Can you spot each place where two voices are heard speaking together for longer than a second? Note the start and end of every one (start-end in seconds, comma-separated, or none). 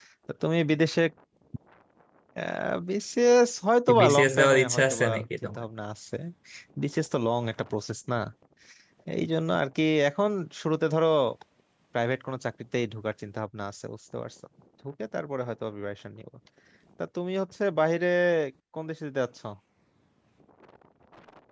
4.0-5.6